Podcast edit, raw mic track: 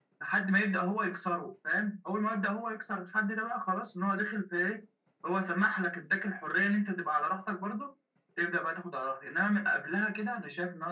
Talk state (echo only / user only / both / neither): echo only